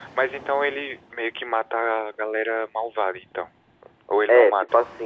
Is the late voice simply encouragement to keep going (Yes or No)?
No